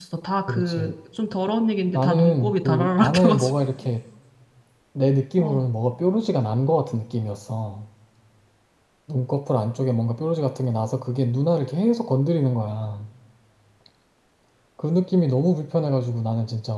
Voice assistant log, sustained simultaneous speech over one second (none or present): present